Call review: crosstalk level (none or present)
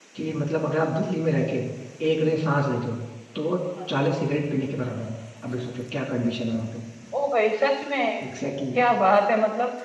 none